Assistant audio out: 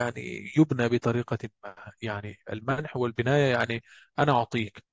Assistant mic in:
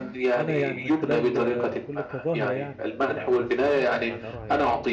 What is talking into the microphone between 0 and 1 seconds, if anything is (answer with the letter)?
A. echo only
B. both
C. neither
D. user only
B